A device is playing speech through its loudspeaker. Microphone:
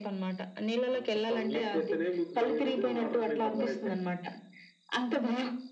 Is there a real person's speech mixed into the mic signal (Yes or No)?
No